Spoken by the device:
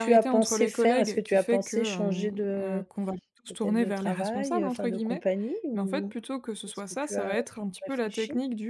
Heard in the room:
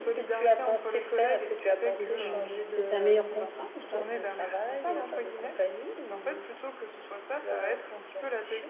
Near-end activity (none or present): present